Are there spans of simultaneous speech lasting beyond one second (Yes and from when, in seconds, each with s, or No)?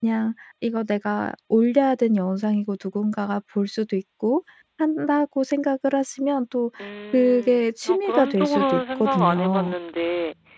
Yes, from 7.1 s